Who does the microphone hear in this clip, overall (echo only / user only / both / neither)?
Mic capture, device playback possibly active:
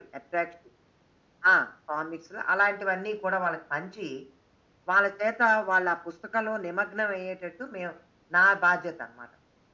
echo only